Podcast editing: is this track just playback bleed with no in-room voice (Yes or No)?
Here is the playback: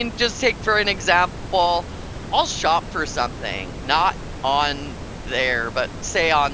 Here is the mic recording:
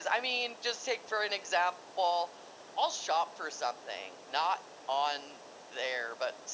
Yes